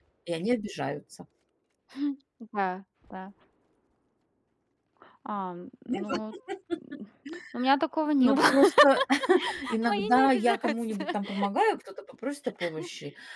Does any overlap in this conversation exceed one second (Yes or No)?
Yes